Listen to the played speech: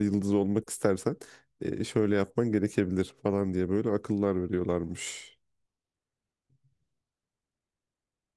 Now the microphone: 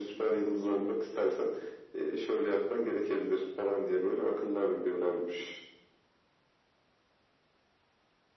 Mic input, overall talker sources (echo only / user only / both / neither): echo only